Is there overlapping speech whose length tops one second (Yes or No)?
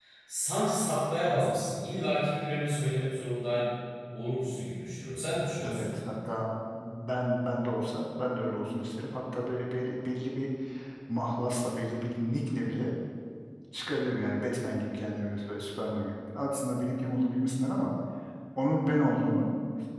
No